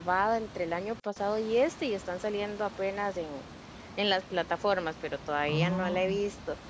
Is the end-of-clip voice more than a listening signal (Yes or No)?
No